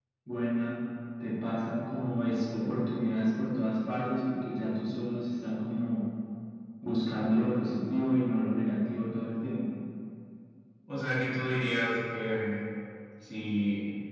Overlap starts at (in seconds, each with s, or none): none